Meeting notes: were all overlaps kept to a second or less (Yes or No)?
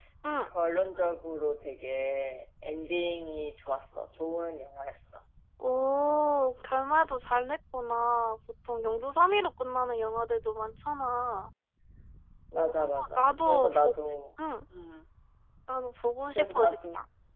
No